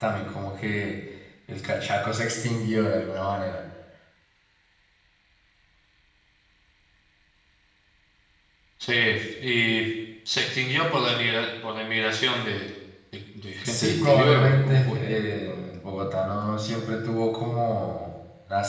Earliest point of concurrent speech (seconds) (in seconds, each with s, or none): 13.6 s